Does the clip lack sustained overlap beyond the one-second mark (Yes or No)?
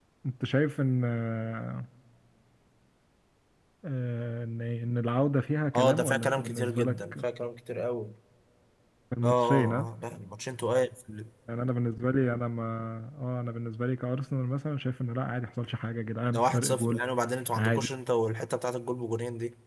No